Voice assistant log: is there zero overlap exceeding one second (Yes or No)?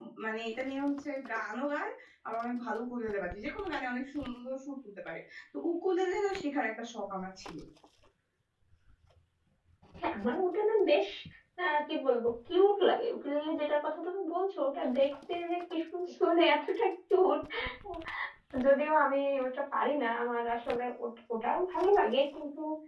Yes